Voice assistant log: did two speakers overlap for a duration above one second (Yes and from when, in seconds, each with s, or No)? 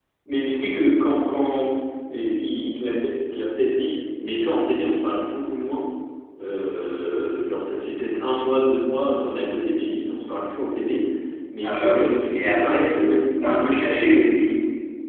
Yes, from 11.6 s